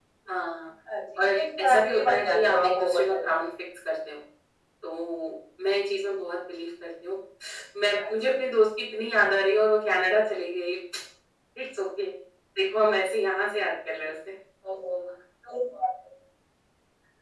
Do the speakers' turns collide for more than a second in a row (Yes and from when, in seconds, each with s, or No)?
Yes, from 1.2 s